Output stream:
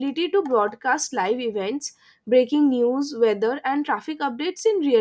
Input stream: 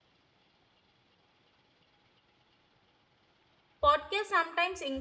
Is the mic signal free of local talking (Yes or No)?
No